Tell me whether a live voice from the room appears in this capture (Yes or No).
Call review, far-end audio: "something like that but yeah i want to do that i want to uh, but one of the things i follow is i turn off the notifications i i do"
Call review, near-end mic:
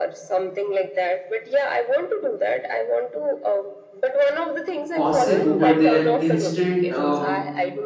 Yes